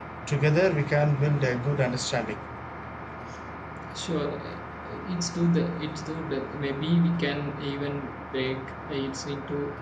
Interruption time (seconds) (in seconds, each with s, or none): none